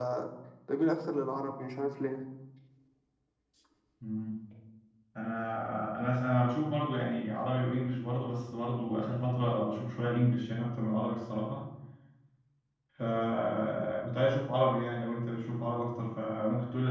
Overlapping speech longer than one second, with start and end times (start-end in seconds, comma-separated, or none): none